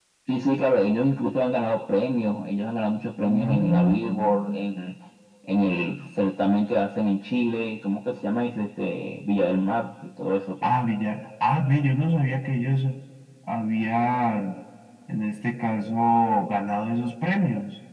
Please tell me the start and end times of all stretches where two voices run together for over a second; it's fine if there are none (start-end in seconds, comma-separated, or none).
3.2-4.6